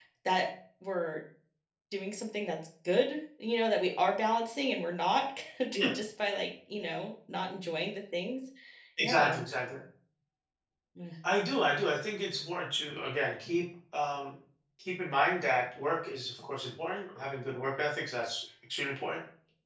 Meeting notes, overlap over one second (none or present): none